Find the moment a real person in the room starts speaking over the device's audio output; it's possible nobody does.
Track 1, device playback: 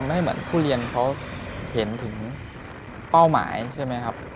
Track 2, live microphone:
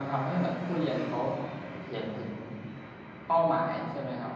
none

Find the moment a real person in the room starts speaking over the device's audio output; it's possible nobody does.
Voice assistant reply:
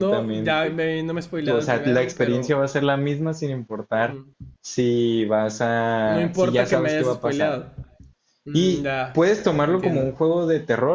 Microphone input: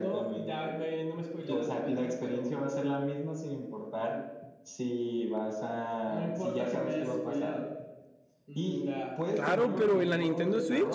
9.3 s

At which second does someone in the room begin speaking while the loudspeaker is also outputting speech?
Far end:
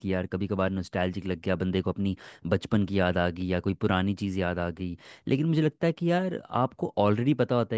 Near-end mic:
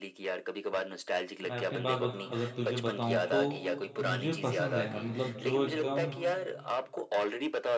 1.4 s

